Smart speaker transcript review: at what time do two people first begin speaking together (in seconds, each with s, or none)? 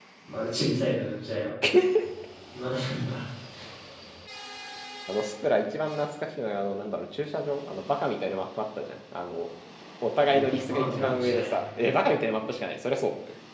10.3 s